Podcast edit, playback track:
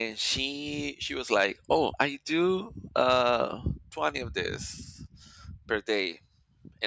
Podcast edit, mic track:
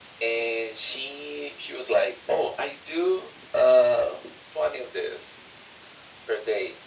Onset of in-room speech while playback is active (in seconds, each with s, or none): none